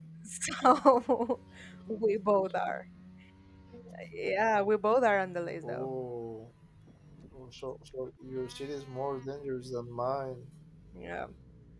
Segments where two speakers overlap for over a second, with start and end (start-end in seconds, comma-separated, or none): none